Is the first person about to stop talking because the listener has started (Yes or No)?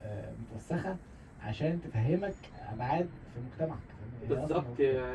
Yes